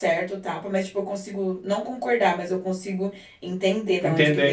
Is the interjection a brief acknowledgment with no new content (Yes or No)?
No